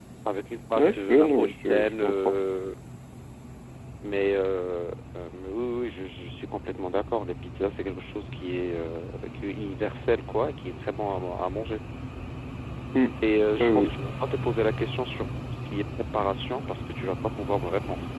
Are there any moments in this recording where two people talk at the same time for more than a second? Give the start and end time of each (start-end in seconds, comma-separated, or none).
0.7-2.4